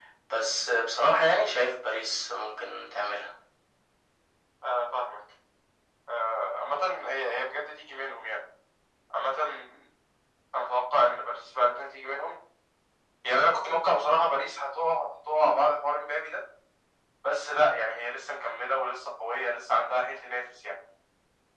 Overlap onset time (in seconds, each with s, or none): none